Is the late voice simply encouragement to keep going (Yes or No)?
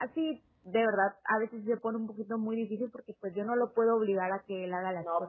Yes